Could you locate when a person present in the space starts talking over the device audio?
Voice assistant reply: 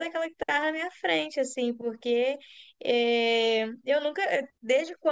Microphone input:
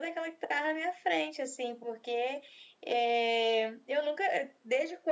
none

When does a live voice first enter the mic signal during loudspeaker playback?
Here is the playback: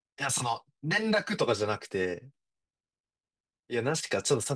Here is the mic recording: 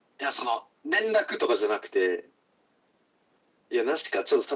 none

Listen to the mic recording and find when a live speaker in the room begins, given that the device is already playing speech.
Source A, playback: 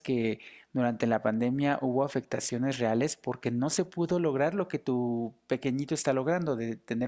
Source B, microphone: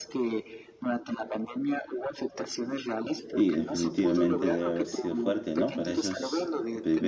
3.3 s

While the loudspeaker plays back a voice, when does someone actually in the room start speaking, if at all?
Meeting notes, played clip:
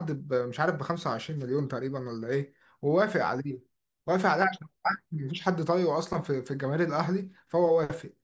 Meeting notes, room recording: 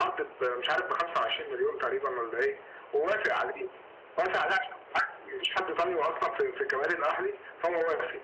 none

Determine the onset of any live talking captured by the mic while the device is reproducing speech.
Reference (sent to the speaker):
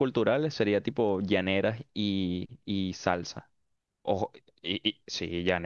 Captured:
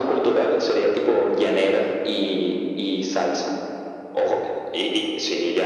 none

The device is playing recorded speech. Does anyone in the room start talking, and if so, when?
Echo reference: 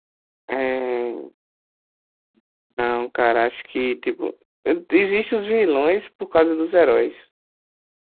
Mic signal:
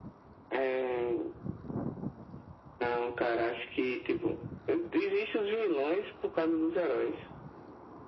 none

